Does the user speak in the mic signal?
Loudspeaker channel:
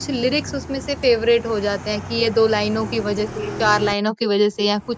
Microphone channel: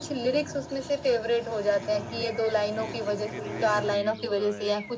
Yes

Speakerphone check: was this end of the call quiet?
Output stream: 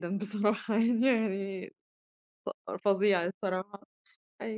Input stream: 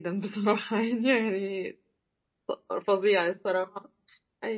Yes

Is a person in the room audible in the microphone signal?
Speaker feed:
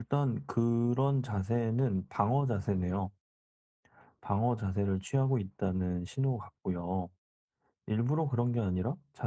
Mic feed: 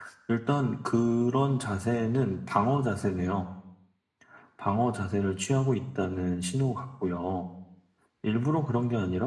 No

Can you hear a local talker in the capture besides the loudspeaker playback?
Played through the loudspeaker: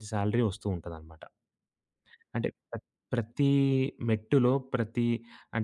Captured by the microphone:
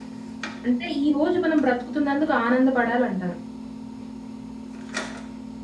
Yes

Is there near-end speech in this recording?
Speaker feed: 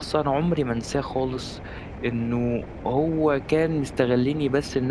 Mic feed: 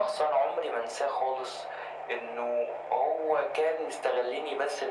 No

